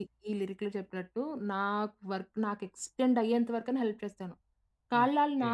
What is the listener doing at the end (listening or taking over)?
listening